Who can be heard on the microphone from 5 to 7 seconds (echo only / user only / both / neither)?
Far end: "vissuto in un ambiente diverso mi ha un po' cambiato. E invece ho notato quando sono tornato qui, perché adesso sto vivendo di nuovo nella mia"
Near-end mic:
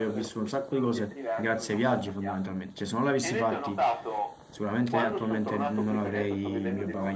both